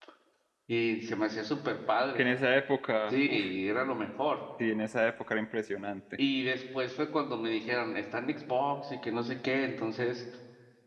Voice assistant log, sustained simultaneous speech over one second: none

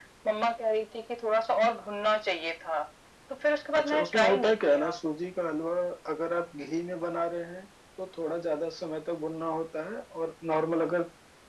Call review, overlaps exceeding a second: present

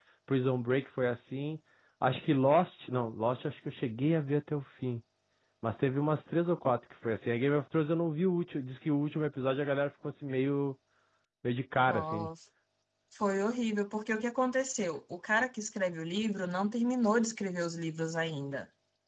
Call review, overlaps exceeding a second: none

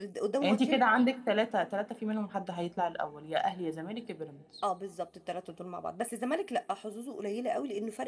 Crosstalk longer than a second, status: none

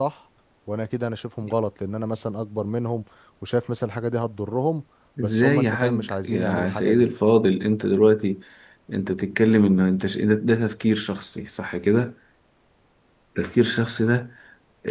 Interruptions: present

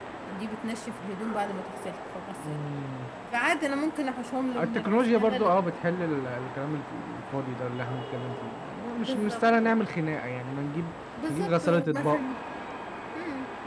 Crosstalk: present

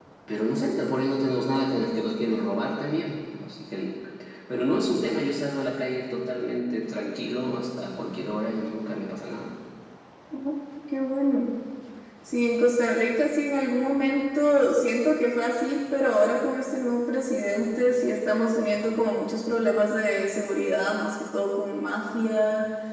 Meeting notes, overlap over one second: none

